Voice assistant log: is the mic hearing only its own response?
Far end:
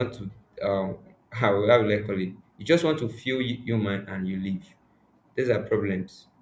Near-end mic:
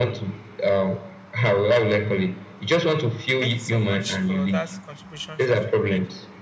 No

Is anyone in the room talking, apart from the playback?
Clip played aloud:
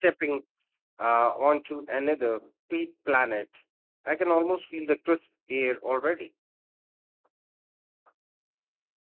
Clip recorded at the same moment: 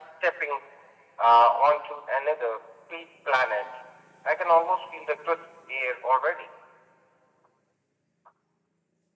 No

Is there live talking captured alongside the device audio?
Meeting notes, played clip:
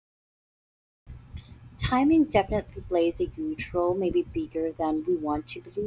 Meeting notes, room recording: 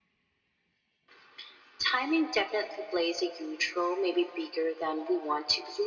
No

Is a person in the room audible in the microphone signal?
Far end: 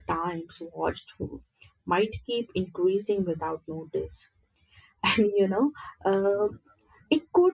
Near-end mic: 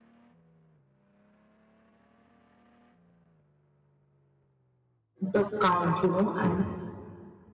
Yes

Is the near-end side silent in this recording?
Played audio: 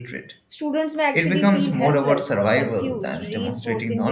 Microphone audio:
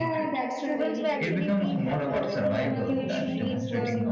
No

